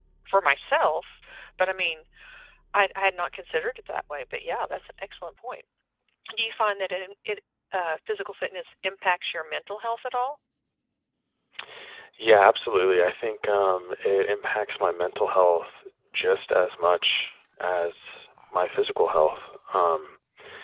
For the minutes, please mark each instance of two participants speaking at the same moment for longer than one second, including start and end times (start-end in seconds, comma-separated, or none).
none